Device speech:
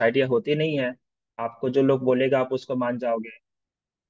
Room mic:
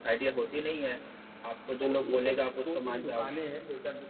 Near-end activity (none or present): present